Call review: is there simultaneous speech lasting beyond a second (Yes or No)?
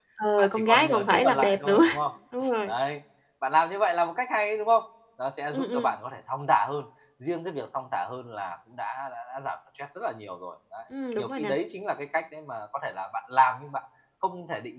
Yes